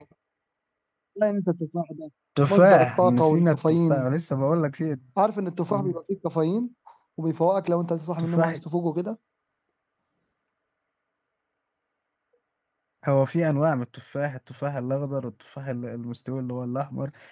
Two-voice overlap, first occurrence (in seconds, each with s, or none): 2.5 s